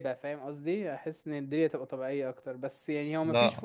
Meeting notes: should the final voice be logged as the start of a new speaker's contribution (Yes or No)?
No